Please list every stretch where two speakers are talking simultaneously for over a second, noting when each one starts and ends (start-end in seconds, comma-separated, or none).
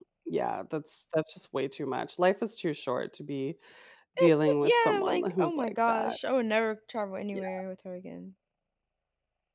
4.2-6.2